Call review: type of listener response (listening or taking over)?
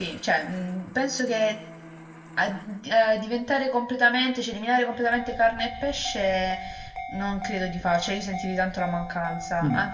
listening